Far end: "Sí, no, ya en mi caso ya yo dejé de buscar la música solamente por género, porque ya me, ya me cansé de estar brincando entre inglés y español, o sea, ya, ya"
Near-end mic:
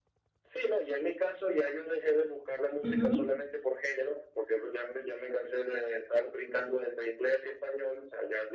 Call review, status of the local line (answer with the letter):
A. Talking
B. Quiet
A